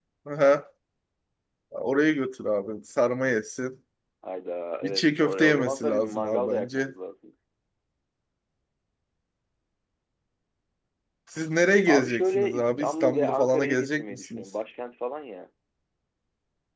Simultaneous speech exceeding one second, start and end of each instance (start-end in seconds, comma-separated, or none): 4.8-6.9, 11.9-14.4